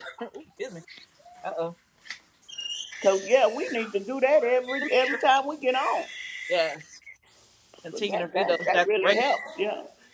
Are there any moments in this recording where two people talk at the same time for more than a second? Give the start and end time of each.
7.9-9.2

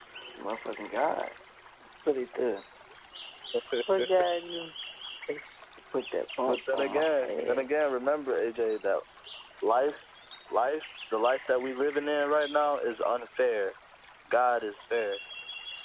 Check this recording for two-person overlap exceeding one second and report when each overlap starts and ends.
6.5-7.9

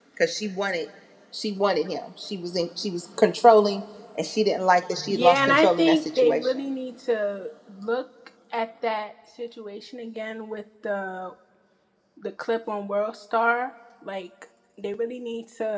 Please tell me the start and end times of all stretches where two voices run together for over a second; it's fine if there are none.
5.1-6.6

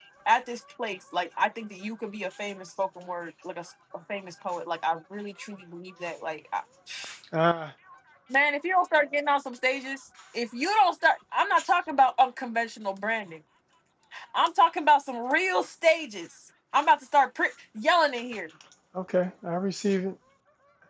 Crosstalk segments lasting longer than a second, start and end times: none

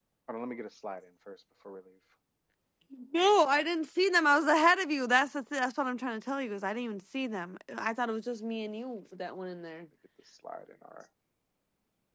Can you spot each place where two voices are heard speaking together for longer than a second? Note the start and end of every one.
none

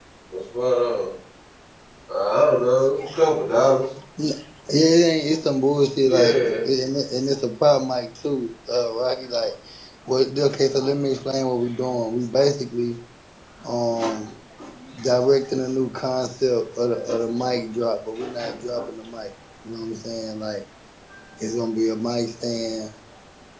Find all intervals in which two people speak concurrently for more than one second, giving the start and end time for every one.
none

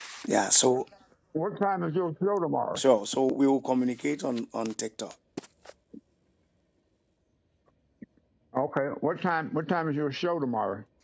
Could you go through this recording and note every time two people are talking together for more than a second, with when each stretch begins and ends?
none

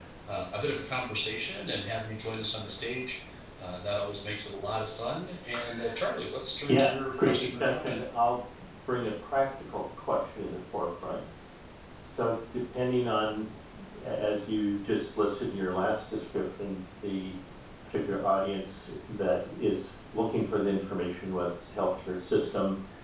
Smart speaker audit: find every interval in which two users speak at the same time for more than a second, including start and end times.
6.6-8.0

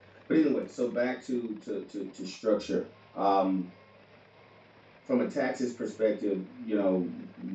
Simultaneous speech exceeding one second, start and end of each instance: none

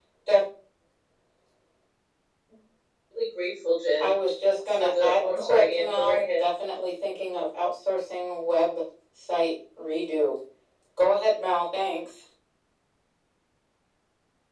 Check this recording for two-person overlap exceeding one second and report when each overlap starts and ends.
4.7-6.5

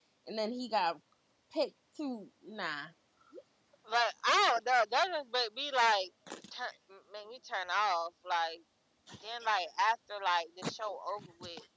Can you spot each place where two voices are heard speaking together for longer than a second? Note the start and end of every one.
none

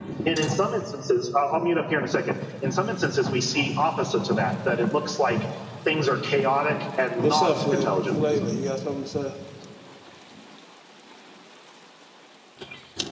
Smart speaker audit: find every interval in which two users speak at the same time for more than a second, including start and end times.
7.2-8.6

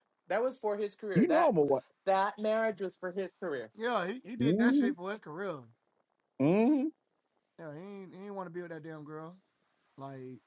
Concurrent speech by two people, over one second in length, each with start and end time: none

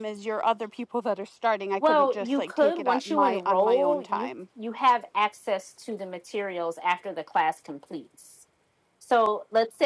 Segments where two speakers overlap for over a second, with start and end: 1.8-4.3

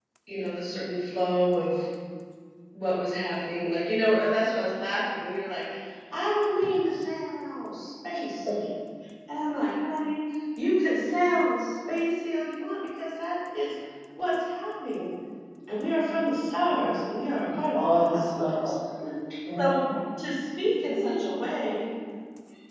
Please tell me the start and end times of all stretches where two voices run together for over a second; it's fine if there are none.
17.5-18.7

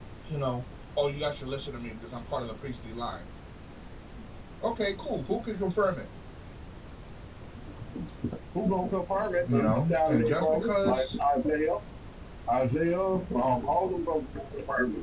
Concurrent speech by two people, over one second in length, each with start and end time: 9.5-11.2

